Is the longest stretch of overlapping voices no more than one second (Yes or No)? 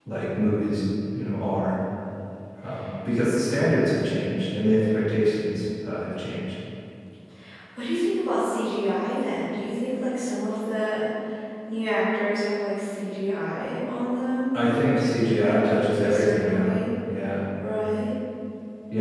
No